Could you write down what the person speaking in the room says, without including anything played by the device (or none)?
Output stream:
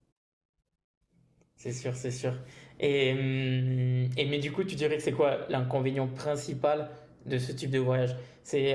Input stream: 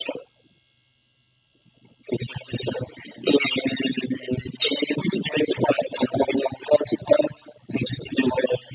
none